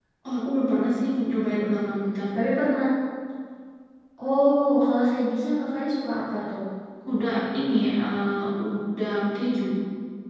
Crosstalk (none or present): none